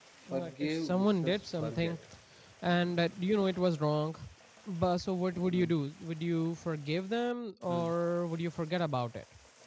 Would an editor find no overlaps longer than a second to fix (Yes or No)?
No